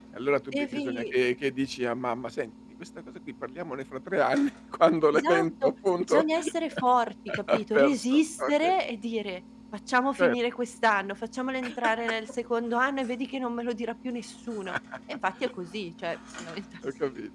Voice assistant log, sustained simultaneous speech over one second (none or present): present